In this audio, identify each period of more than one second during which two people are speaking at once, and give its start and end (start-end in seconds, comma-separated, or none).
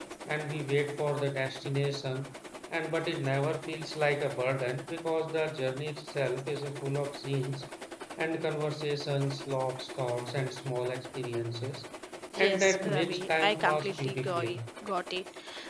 12.4-14.6